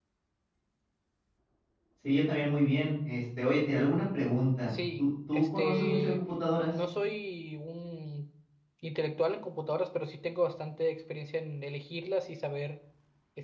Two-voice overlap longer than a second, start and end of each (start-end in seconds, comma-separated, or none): 4.7-6.2